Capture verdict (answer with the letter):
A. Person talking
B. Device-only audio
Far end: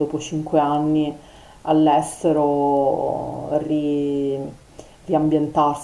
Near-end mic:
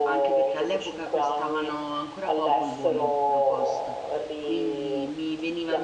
A